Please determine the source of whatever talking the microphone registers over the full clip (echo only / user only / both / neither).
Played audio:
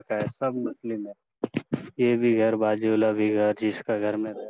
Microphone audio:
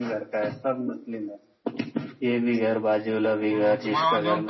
both